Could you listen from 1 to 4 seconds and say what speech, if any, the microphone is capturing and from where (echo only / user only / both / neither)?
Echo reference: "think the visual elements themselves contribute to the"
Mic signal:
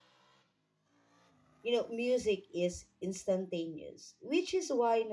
user only